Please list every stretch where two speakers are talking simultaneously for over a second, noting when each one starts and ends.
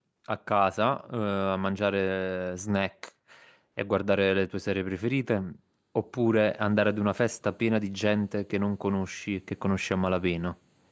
none

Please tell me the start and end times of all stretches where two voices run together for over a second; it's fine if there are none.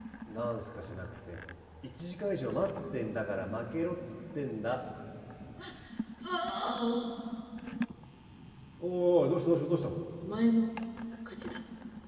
none

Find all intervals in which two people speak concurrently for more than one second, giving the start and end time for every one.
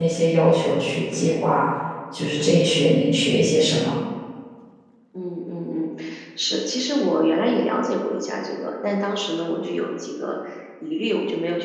none

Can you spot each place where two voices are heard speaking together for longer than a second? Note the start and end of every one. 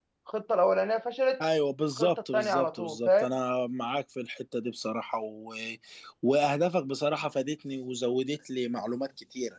2.0-3.3

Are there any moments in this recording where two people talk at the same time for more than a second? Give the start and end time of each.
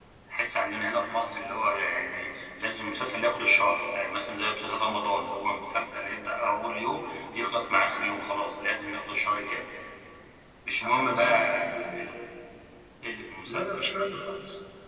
10.8-12.2

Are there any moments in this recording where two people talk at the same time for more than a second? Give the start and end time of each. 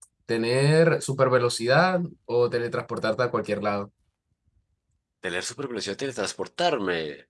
none

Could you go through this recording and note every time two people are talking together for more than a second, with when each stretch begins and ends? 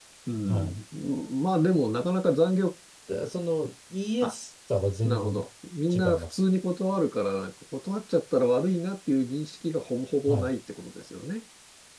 none

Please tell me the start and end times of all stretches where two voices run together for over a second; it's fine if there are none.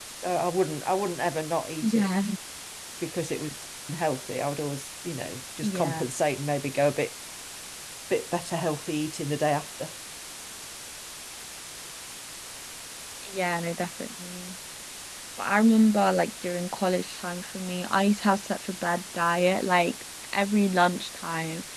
none

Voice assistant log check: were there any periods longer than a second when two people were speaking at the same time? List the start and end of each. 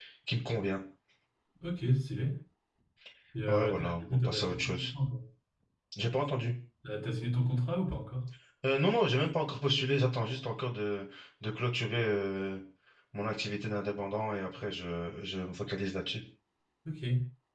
3.5-4.8

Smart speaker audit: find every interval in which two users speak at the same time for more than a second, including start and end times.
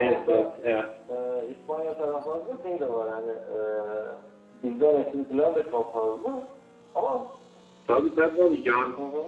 none

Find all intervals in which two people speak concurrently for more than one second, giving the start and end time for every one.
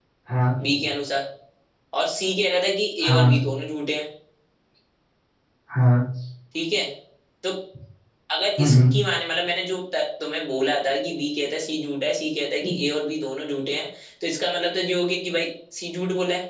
none

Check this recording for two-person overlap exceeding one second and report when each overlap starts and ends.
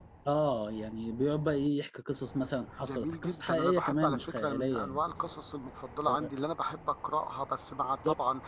2.8-5.0

